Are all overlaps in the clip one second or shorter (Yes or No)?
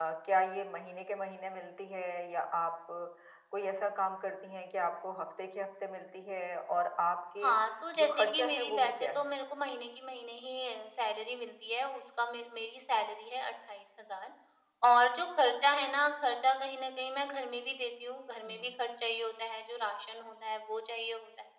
No